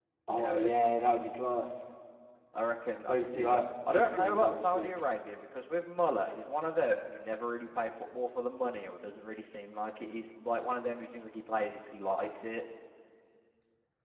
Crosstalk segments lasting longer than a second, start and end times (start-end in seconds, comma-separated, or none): 3.1-5.0